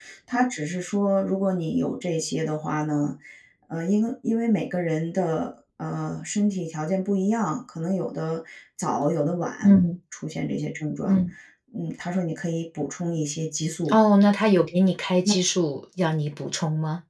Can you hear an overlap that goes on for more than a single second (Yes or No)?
No